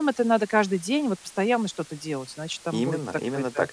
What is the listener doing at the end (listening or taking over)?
taking over